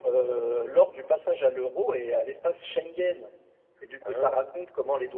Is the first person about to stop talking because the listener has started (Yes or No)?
No